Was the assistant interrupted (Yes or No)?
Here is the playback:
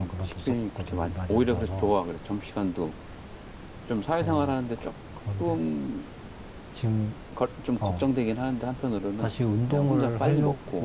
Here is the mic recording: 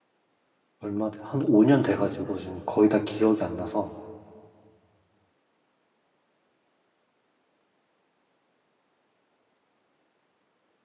Yes